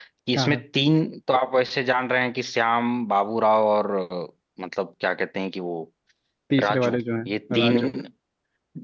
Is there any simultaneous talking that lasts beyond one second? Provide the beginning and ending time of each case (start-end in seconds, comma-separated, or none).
6.6-7.9